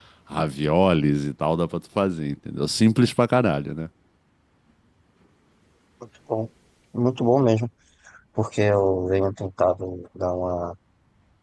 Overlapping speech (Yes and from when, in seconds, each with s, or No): No